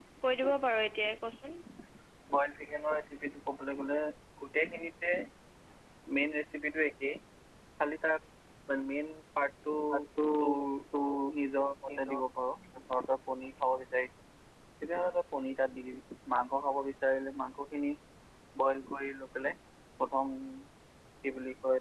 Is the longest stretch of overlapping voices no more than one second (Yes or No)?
Yes